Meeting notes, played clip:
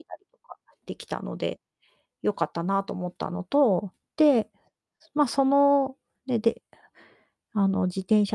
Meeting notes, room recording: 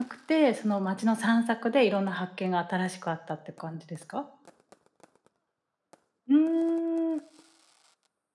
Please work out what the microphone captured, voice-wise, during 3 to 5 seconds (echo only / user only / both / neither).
user only